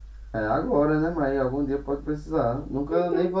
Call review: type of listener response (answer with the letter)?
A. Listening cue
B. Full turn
B